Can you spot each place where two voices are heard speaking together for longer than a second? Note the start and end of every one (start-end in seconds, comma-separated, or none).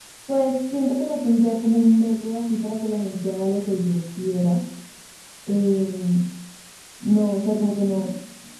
none